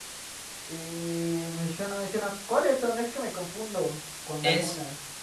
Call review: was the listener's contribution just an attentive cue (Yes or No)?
No